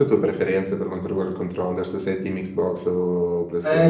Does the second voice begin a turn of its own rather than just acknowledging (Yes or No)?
Yes